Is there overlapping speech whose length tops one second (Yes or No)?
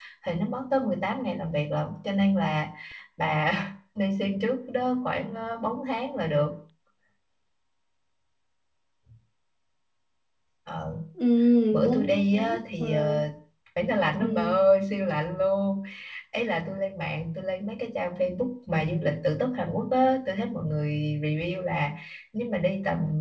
Yes